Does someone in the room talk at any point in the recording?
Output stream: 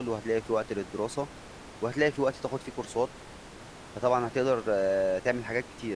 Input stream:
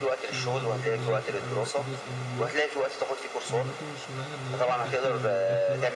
Yes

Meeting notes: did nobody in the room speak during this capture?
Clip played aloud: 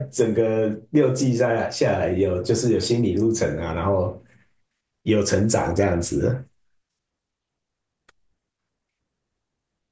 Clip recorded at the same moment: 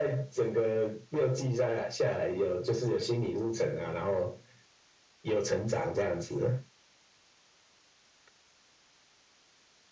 Yes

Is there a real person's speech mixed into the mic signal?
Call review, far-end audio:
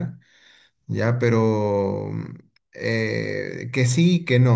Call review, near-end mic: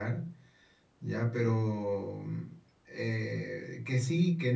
No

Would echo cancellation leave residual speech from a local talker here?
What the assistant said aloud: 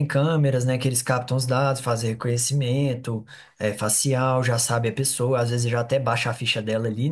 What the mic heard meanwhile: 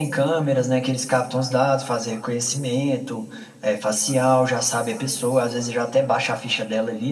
No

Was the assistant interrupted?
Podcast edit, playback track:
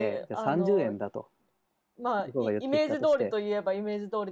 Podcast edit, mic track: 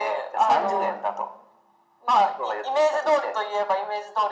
Yes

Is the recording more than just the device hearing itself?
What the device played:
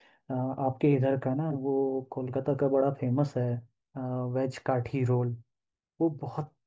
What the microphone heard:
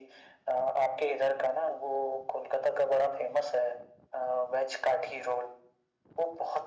No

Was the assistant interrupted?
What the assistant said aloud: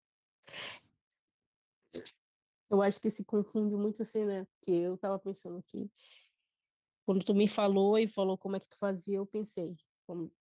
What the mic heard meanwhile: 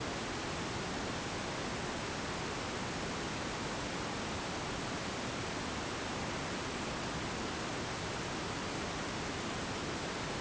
No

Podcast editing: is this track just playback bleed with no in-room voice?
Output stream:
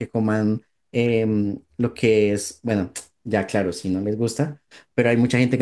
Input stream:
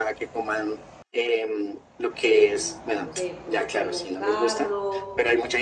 No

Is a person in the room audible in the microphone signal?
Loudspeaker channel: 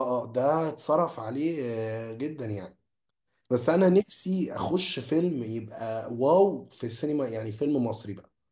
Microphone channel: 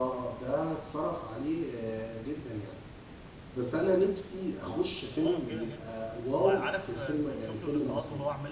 Yes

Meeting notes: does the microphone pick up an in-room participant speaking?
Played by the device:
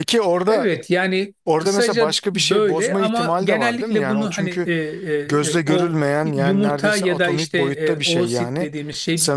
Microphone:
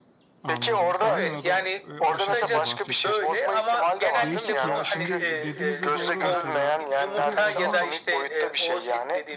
Yes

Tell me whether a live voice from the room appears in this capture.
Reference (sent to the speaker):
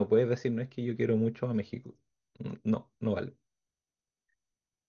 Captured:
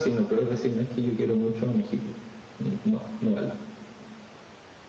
No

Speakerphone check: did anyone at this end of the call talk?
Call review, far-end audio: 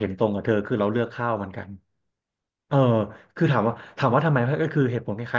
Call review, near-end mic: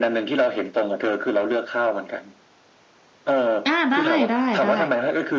Yes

